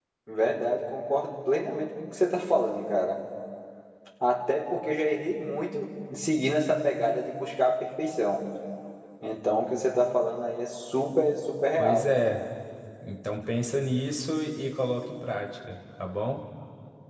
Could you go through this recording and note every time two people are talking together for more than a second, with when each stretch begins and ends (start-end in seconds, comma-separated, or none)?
none